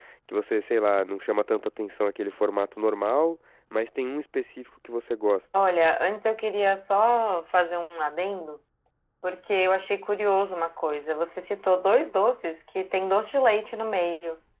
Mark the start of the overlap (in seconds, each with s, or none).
none